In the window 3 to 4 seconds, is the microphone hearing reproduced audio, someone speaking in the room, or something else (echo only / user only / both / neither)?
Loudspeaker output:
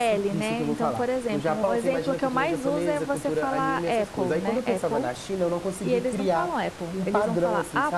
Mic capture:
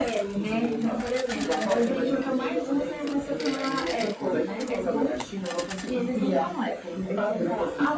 echo only